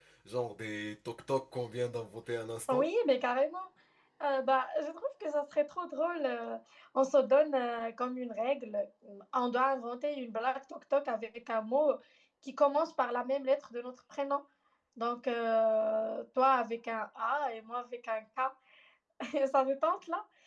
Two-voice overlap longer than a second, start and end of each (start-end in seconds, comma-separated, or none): none